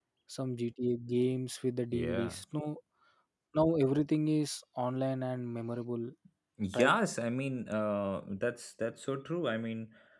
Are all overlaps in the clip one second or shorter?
Yes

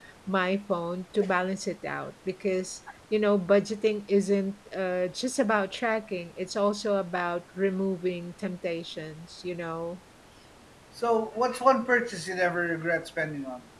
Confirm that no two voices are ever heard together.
Yes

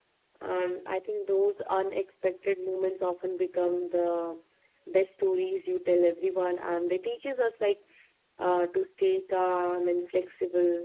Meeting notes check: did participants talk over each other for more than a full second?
No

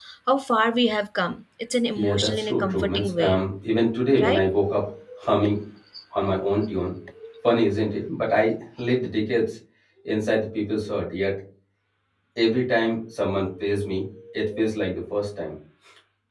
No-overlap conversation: No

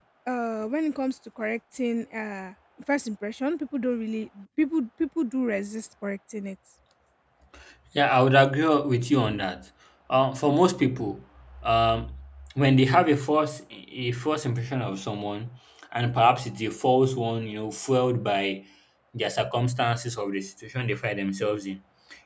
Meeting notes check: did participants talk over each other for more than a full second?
No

